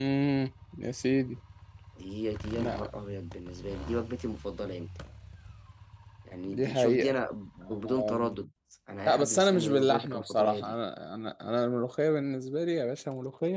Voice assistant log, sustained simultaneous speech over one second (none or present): present